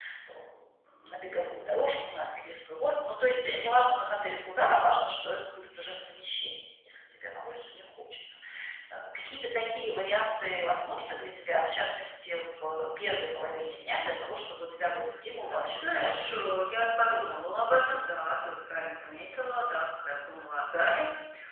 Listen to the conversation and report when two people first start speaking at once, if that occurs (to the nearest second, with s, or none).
15 s